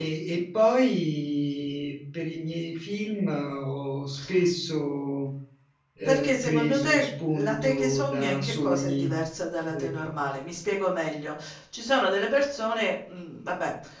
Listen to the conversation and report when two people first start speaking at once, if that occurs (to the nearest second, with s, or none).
6 s